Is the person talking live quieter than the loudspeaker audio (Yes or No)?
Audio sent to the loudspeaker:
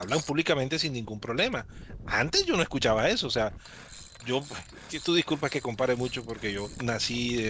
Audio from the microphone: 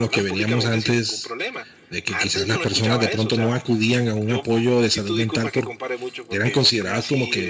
No